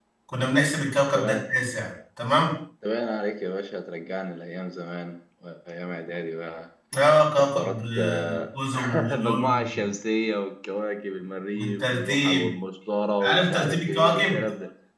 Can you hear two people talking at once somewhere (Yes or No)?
Yes